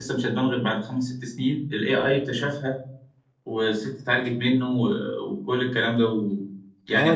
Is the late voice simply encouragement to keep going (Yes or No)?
No